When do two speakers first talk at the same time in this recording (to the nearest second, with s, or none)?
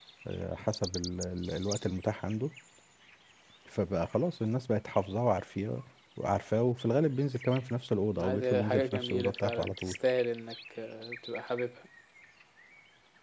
8 s